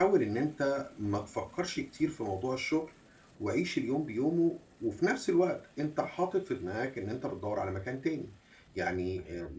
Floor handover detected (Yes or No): Yes